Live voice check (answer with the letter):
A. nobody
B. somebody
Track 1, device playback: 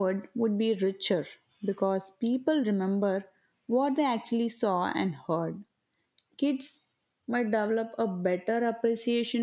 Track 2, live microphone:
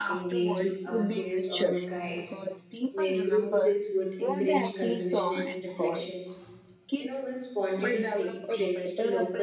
B